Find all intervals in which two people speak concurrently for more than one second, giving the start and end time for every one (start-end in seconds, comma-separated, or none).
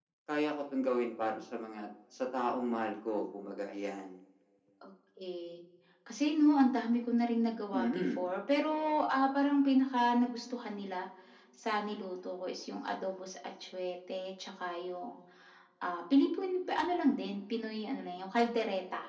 none